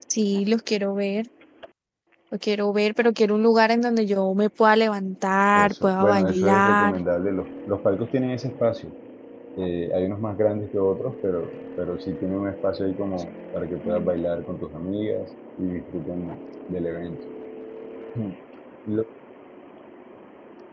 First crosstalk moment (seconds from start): 6 s

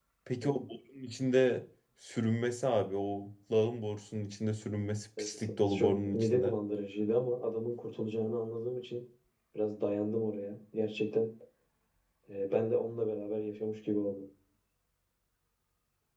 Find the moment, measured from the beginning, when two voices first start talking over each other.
5 s

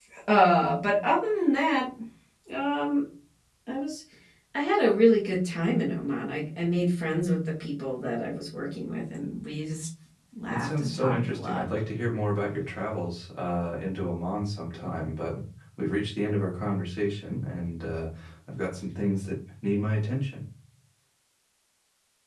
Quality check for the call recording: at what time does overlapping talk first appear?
10 s

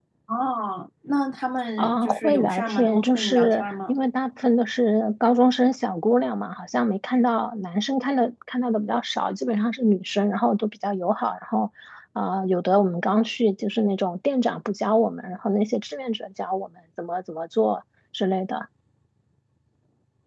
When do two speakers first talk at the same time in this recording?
2 s

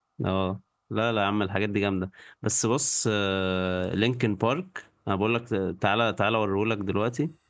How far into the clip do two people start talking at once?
none

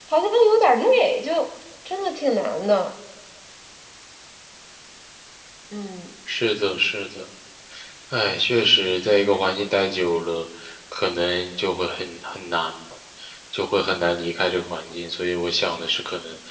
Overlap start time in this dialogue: none

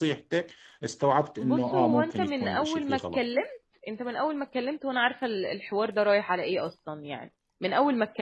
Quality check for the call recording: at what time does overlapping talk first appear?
1 s

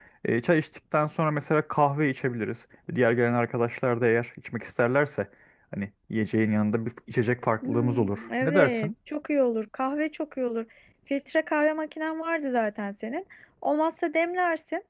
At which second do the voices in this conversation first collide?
8 s

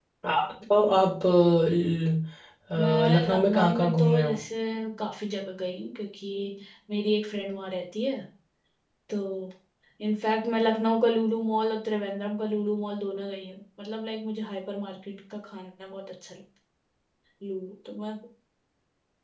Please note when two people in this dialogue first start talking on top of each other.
3 s

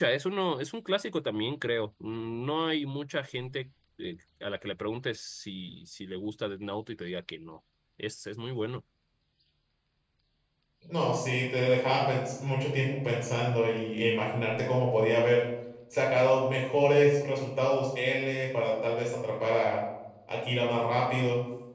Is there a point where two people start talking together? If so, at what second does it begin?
none

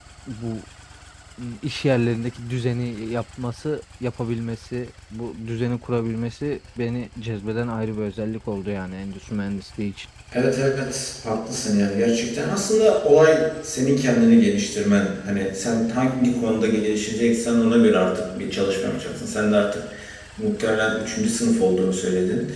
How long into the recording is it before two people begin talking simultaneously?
none

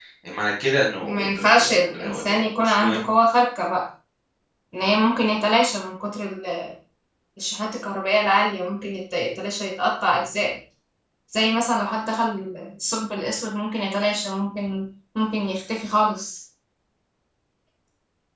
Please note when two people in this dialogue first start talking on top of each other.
1 s

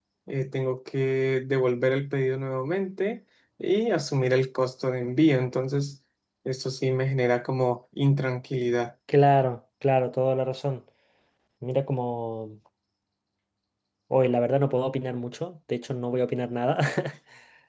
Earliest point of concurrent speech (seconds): none

